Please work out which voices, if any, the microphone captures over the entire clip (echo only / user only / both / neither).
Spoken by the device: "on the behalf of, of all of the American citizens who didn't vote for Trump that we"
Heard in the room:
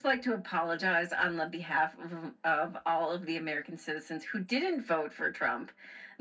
echo only